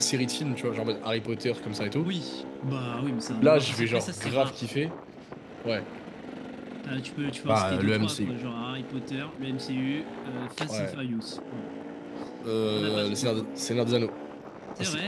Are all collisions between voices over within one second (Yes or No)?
No